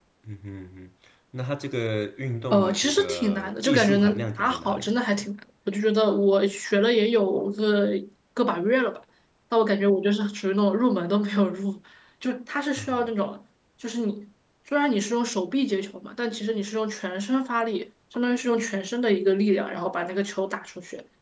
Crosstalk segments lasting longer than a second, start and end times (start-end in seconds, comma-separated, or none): 2.5-5.2